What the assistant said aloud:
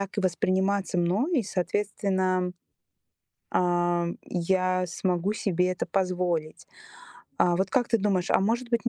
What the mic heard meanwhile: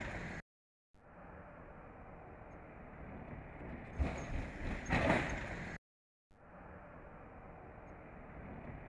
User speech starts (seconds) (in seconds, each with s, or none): none